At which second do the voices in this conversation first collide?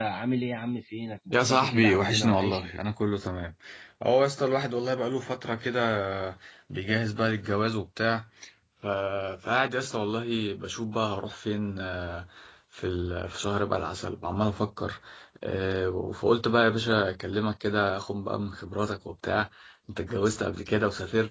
1.3 s

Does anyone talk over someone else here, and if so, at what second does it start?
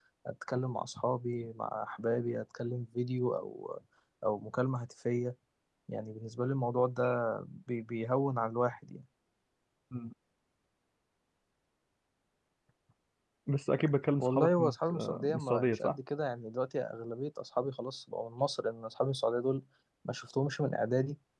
14.2 s

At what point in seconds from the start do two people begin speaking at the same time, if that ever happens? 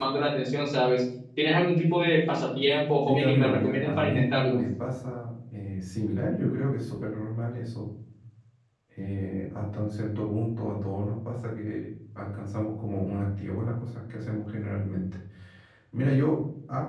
3.1 s

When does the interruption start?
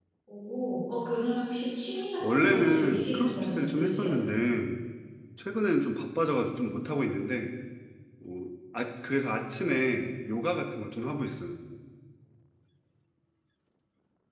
2.2 s

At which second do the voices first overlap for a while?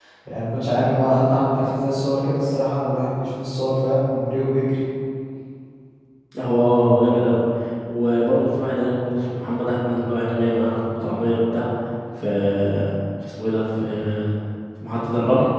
none

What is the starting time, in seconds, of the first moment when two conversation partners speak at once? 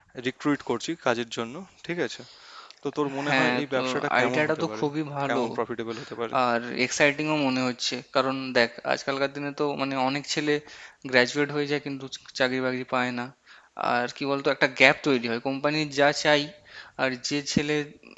3.2 s

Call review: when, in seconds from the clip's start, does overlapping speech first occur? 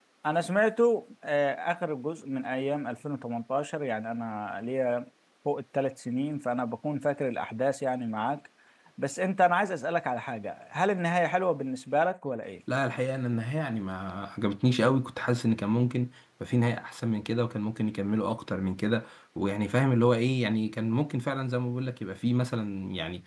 none

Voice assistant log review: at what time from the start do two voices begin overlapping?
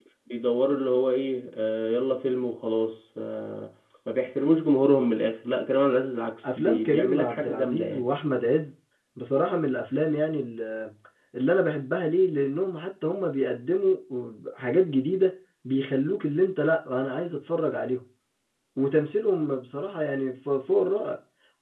6.4 s

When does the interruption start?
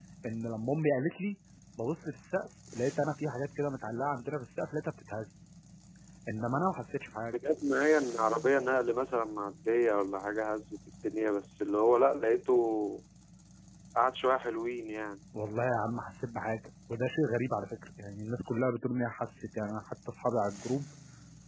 none

